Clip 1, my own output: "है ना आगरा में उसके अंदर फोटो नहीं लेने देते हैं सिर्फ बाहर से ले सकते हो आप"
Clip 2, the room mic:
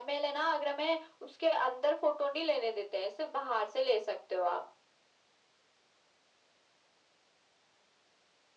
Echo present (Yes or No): Yes